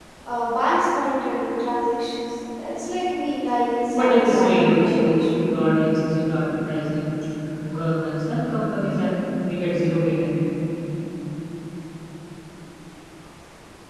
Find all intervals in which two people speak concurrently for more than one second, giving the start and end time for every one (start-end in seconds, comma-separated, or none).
3.9-5.2